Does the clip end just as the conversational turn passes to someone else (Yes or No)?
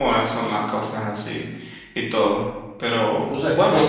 Yes